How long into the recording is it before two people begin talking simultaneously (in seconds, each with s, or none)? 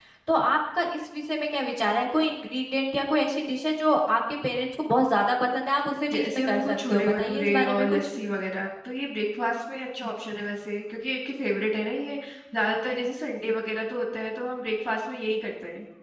6.1 s